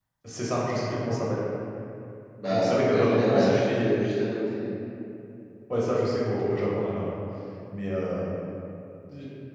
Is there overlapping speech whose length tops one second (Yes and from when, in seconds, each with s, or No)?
Yes, from 2.5 s